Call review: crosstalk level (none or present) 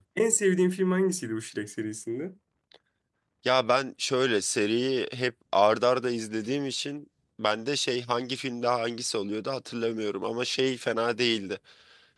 none